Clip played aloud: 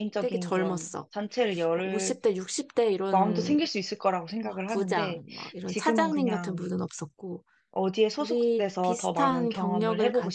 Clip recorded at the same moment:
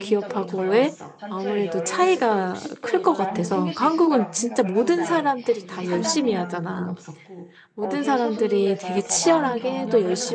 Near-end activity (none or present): present